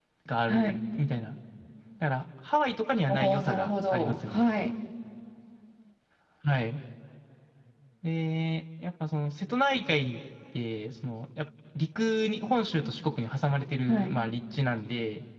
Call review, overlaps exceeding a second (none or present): present